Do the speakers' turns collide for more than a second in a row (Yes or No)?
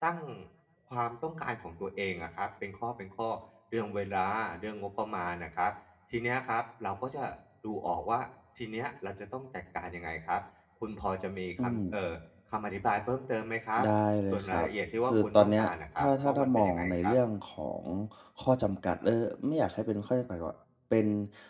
Yes